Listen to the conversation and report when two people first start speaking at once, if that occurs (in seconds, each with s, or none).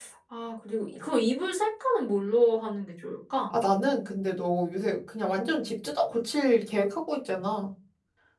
none